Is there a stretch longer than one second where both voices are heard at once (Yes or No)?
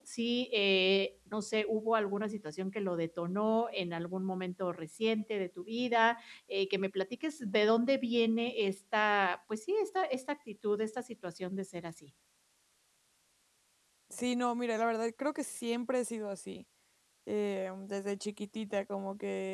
No